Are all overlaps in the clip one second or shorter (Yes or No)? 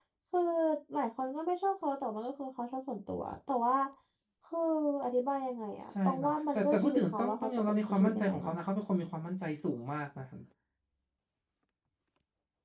No